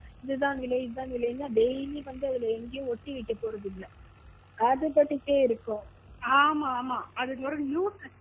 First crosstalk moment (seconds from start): none

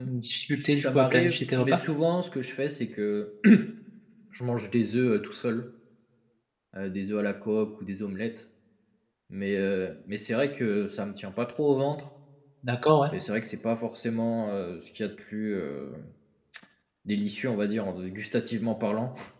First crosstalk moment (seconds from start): 0.6 s

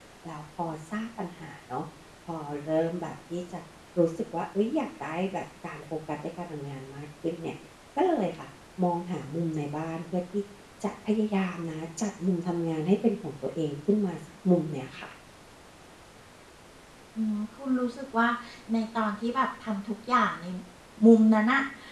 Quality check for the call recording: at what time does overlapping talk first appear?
none

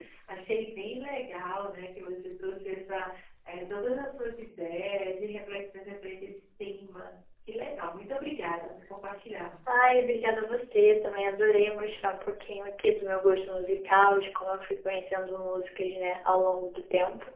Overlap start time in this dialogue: none

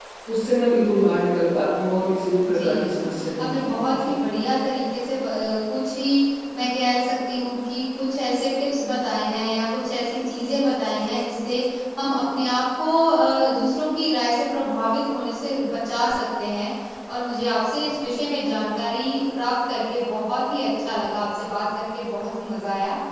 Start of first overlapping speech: 2.4 s

